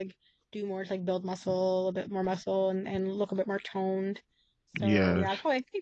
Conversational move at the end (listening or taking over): listening